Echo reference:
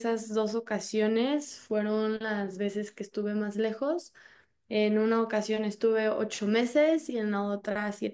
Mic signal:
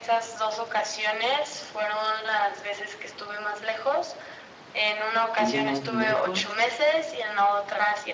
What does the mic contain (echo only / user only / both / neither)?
both